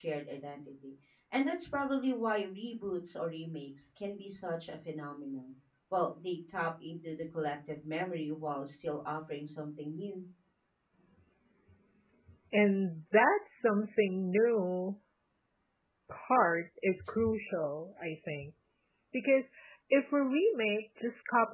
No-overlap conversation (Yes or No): Yes